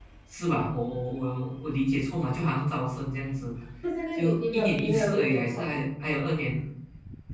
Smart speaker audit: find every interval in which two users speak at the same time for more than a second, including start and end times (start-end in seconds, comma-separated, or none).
4.1-5.6